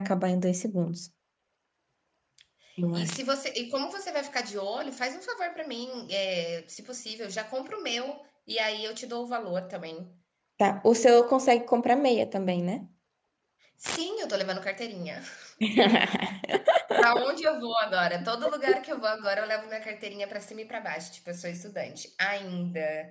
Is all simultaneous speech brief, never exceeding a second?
Yes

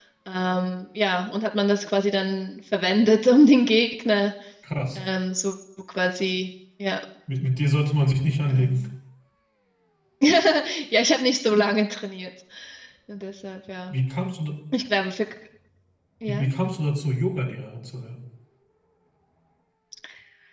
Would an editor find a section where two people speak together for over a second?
No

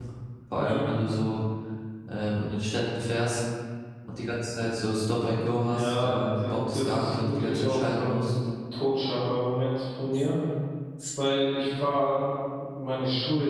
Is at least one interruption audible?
Yes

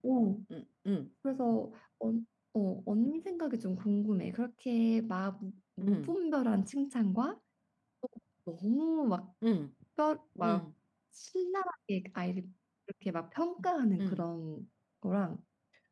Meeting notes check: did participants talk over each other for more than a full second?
No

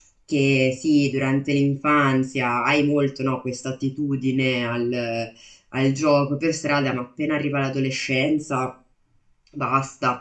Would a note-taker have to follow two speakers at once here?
No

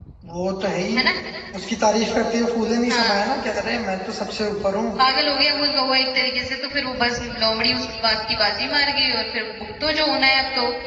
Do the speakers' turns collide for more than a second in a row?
No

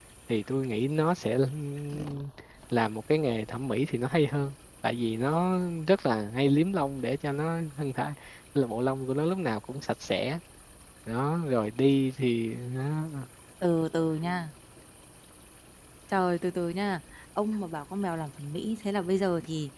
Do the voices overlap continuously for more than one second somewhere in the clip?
No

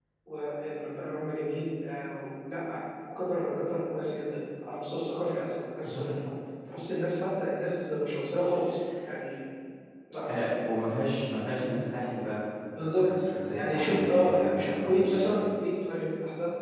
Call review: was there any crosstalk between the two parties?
Yes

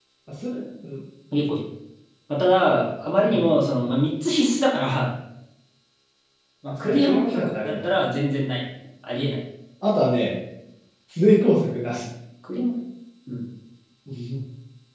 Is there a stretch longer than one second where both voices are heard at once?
Yes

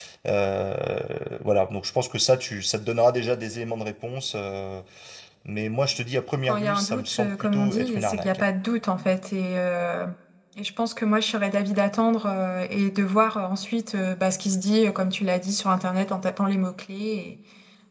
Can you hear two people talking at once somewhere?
Yes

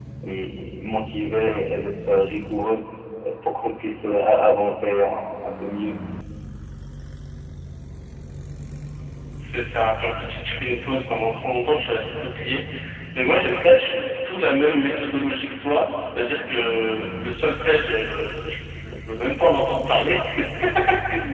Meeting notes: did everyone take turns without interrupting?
Yes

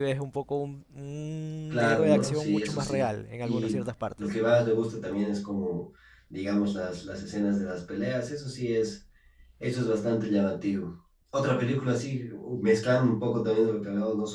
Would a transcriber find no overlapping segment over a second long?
No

